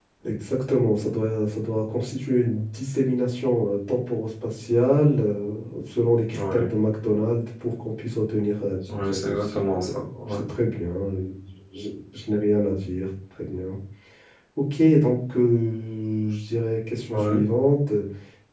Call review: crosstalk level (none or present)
present